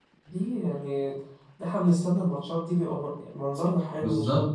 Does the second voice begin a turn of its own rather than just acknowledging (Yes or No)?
Yes